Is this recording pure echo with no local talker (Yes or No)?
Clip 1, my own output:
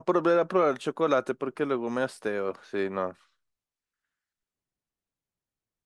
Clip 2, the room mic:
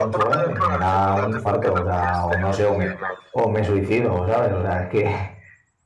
No